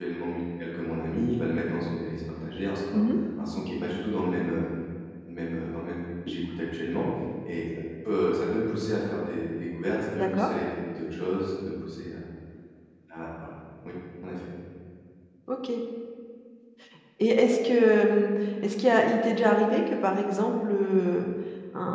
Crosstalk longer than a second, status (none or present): none